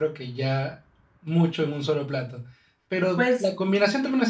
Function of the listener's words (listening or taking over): listening